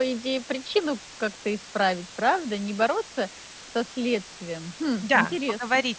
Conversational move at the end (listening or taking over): taking over